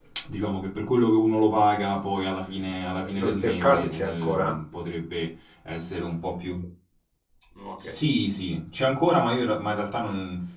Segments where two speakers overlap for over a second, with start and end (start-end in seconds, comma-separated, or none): 3.1-4.5